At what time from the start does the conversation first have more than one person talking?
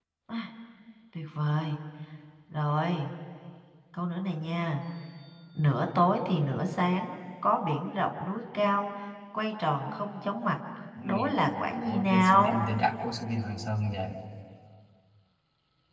11.0 s

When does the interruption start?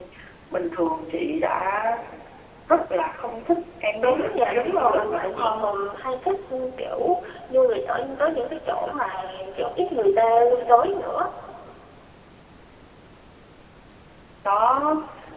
4.0 s

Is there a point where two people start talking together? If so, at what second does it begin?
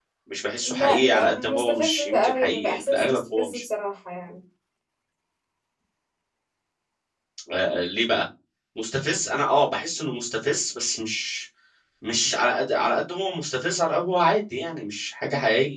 0.7 s

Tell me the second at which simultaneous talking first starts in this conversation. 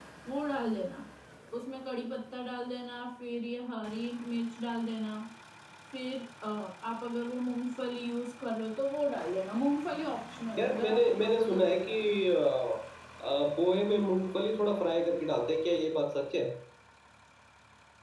10.6 s

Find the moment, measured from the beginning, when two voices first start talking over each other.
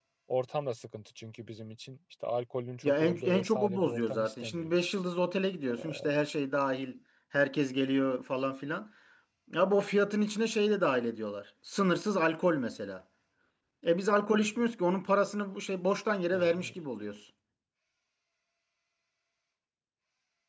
2.8 s

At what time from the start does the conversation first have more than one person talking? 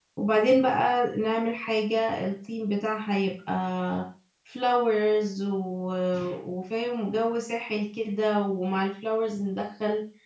none

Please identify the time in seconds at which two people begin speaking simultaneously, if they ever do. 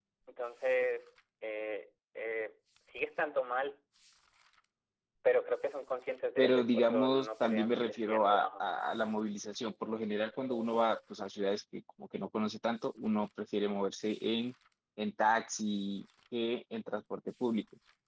6.4 s

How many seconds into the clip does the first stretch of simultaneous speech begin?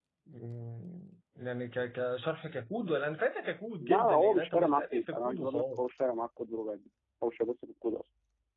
3.8 s

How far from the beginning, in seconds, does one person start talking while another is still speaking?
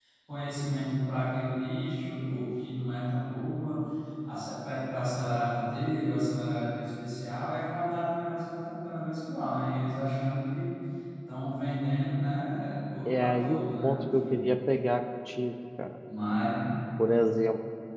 13.1 s

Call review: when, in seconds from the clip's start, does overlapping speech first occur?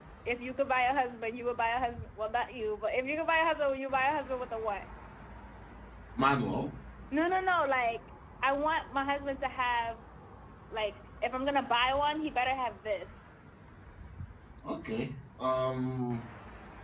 none

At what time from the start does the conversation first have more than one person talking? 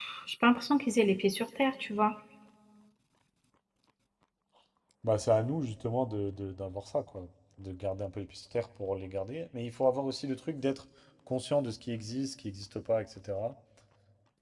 none

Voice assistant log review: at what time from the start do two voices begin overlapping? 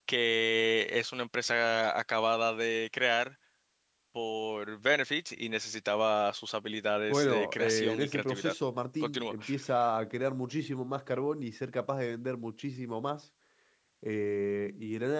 7.1 s

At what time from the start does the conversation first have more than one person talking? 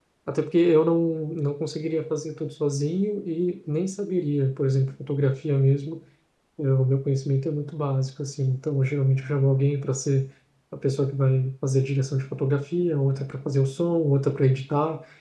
none

